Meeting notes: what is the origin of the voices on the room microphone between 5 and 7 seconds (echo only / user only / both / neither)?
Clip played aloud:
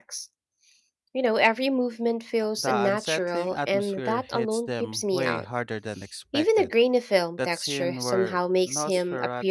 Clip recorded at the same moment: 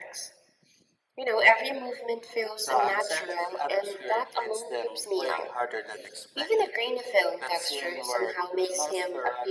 echo only